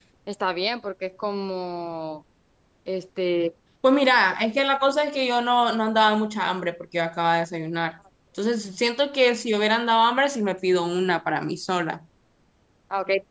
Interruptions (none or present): none